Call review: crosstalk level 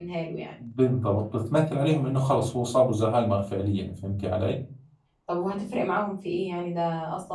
none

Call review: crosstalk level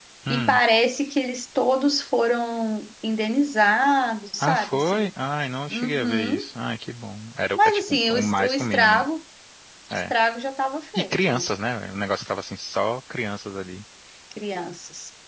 present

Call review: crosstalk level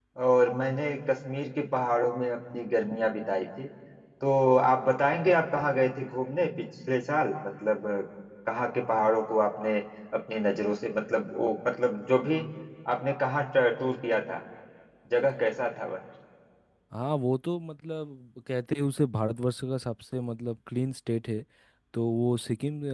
none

